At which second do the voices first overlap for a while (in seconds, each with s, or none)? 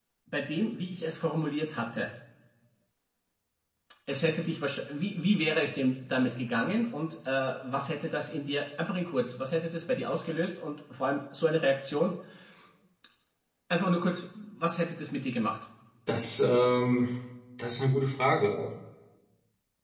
none